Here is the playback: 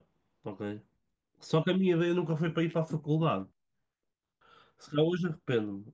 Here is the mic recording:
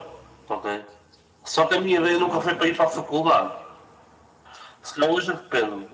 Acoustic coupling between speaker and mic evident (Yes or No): Yes